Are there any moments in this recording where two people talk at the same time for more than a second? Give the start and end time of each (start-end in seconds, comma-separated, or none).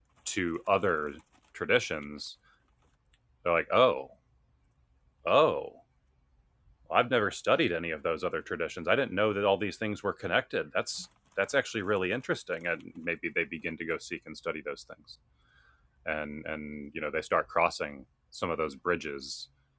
none